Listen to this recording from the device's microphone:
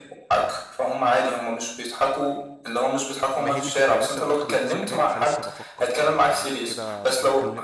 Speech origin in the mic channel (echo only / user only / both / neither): both